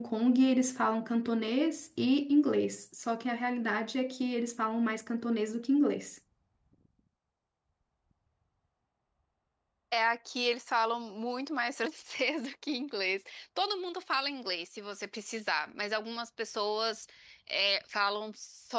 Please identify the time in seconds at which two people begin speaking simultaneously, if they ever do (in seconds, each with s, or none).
none